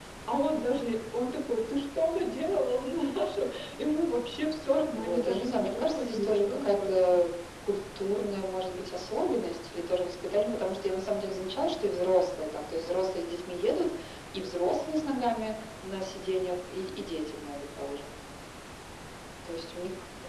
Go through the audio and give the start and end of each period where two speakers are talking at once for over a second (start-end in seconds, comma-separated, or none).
4.9-7.2